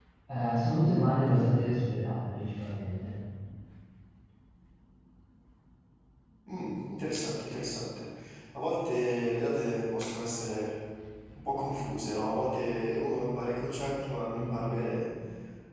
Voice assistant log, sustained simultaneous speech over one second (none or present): none